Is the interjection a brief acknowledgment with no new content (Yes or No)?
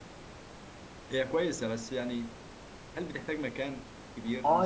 No